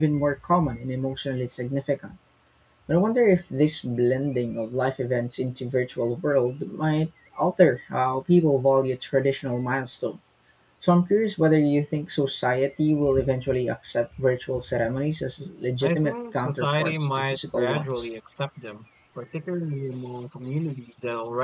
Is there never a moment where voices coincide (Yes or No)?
No